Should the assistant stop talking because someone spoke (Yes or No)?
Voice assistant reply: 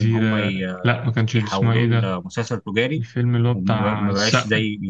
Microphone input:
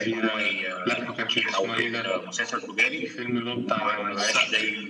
No